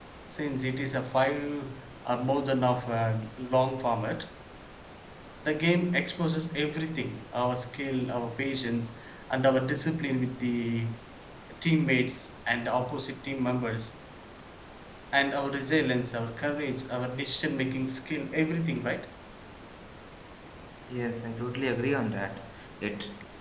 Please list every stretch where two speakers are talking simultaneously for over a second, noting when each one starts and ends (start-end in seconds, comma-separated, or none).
none